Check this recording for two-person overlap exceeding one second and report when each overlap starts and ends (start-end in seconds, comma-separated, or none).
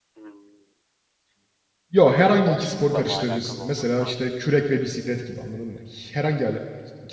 2.4-4.3